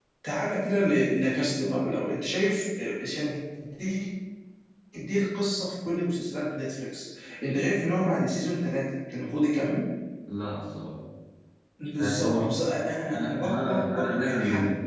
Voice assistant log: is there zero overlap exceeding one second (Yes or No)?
No